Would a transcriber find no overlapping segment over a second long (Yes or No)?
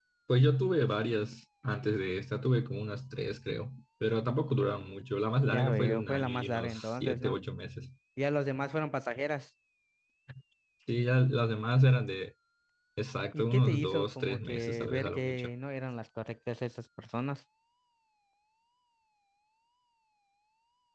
No